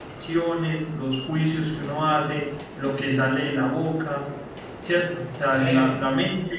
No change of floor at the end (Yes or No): Yes